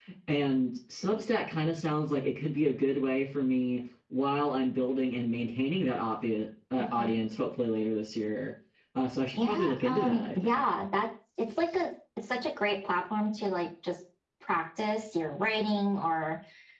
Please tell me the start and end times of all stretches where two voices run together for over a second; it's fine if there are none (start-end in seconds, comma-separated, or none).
9.4-10.7